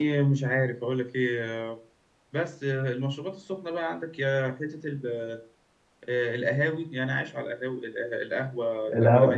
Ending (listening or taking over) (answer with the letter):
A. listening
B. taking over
B